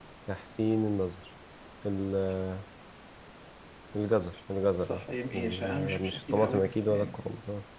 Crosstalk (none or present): present